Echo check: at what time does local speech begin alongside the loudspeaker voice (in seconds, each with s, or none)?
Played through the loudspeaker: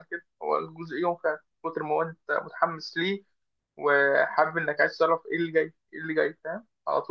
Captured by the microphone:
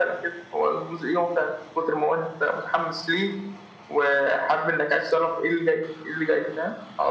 none